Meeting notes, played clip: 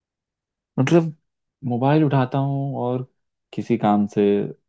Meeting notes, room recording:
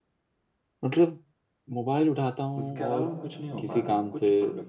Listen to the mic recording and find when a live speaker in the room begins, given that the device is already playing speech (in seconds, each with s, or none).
2.6 s